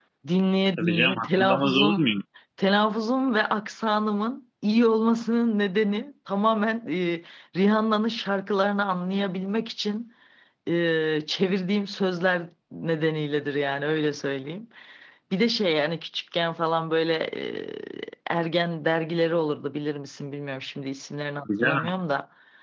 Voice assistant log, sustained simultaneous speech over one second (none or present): present